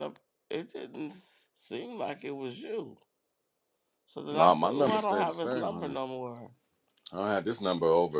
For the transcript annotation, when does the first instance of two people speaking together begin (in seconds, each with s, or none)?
4.3 s